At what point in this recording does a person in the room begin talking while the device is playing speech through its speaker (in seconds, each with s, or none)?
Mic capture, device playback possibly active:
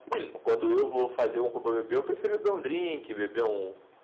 none